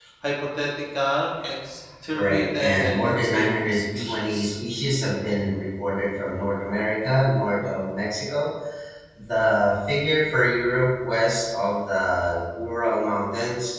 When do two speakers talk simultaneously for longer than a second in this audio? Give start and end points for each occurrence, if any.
2.1-4.5

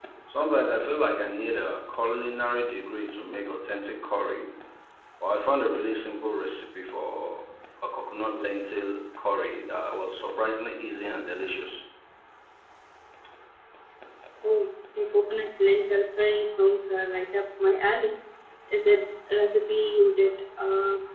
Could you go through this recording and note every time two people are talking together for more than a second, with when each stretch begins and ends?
none

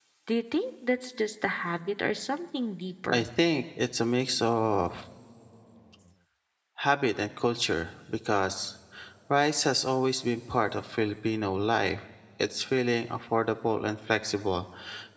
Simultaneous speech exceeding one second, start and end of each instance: none

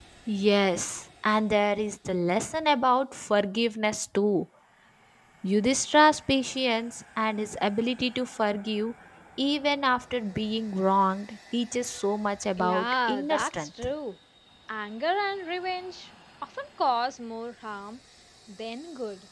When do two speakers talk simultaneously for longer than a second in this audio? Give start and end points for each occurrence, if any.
12.6-13.9

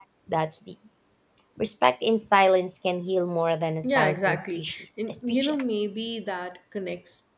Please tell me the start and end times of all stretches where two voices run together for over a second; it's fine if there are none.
3.8-5.7

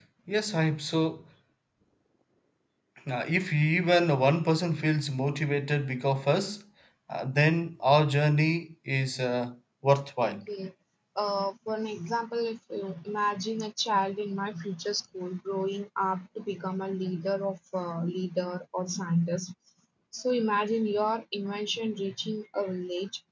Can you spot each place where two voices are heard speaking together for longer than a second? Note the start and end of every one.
none

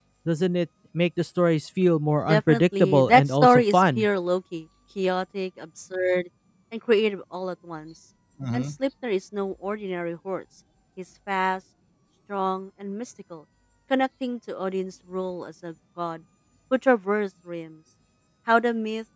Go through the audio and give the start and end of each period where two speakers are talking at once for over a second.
2.2-4.1

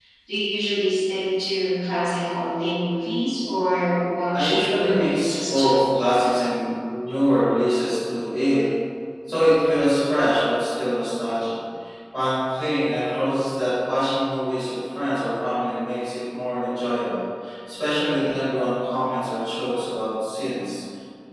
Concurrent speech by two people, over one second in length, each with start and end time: 4.3-5.7

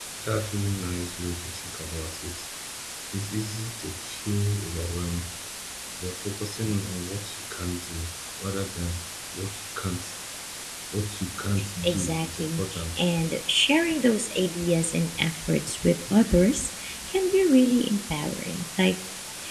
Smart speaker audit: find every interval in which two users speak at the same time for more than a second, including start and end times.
11.8-13.0

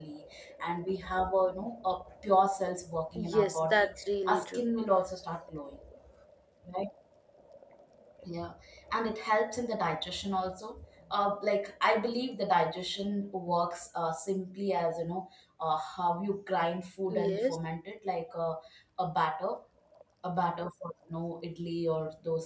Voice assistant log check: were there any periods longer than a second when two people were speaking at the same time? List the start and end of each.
3.2-4.6

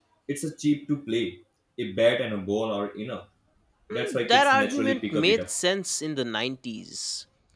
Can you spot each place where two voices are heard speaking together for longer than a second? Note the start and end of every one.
4.1-5.5

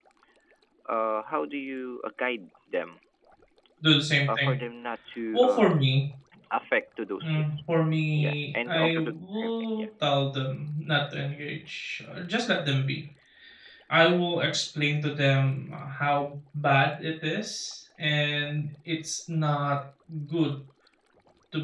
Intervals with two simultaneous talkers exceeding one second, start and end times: 8.2-9.8

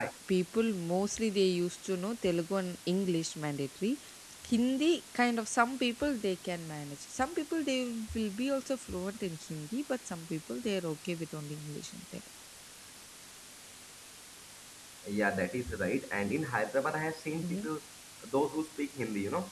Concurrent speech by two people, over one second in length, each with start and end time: none

